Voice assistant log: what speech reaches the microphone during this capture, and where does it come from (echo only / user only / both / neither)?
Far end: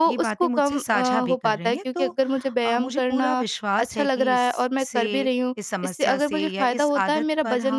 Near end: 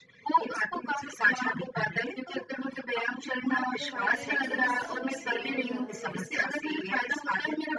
both